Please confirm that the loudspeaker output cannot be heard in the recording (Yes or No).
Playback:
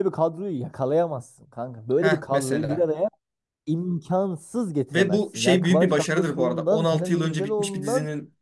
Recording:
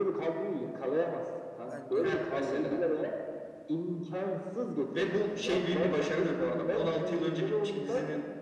No